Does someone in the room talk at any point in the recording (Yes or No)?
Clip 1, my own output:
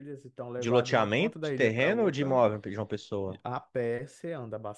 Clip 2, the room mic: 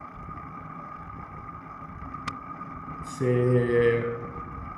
Yes